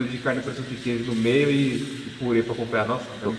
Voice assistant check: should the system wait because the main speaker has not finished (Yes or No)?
No